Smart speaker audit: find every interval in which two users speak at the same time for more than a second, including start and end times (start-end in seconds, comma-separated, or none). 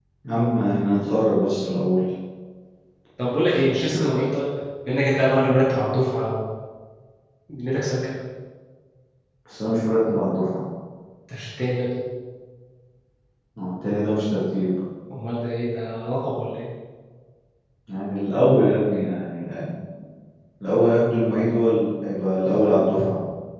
none